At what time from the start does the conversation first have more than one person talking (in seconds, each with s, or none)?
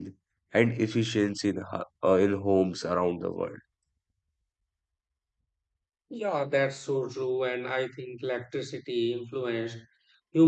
none